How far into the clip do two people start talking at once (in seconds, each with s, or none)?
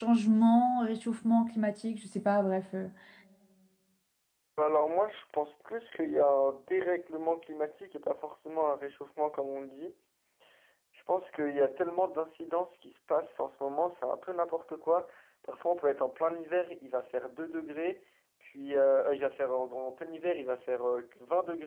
none